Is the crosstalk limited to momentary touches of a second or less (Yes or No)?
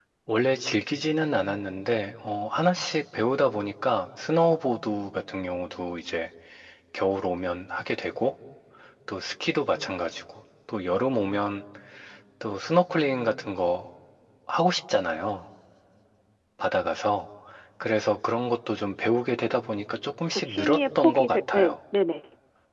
No